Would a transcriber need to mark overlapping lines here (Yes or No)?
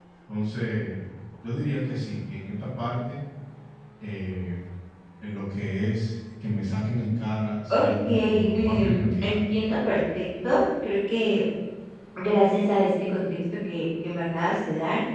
Yes